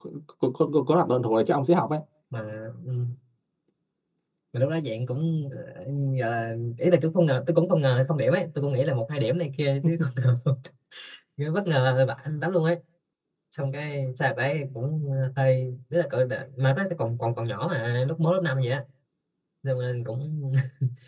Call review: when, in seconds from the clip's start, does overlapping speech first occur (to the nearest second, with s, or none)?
none